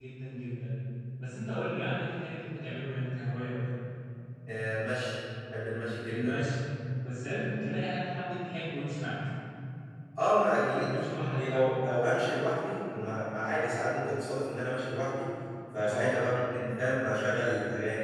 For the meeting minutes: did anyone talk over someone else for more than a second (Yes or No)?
No